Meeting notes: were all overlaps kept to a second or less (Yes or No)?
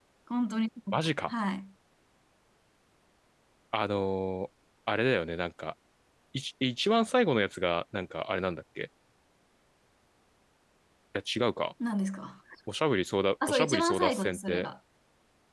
No